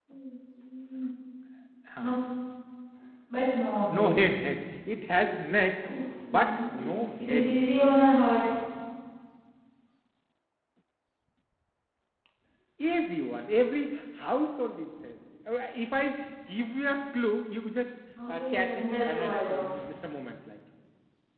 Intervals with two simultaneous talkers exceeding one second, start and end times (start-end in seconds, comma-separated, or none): 6.3-7.9, 18.3-19.8